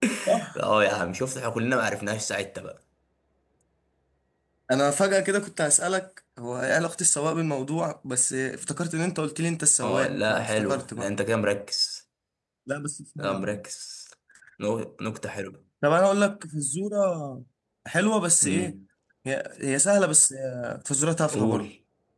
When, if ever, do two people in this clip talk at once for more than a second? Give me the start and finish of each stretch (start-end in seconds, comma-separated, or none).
9.8-11.1